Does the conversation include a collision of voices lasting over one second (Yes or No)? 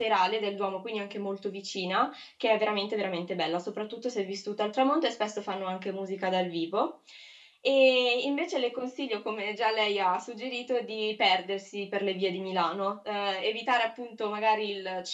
No